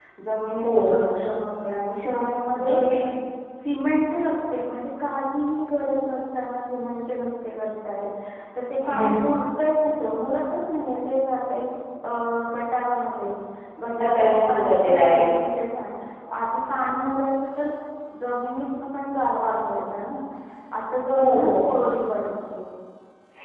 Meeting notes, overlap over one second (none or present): present